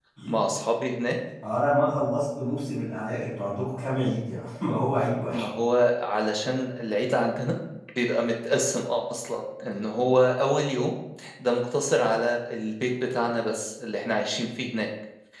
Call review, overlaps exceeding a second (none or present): none